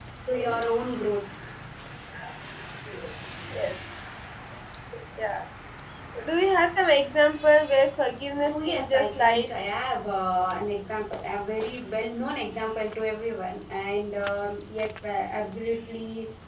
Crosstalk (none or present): present